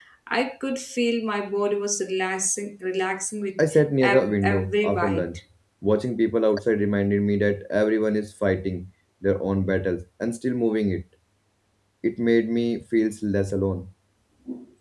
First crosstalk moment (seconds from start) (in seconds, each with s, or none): 4.0 s